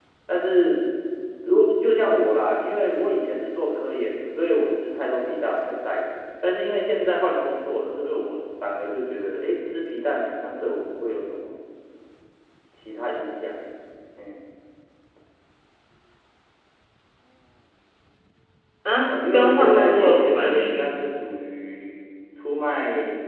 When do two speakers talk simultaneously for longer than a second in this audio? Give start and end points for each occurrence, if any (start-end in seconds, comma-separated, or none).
19.1-20.9